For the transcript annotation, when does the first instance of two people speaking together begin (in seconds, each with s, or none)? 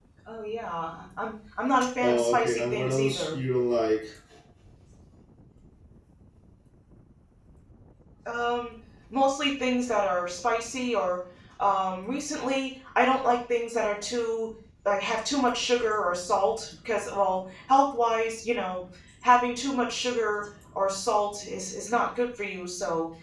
2.0 s